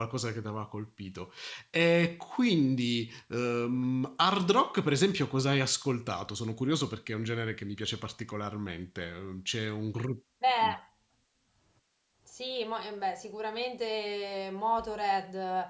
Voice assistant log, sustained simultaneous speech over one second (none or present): none